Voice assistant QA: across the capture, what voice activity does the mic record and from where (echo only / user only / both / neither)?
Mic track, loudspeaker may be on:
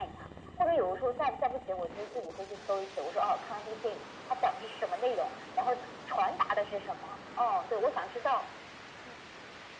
echo only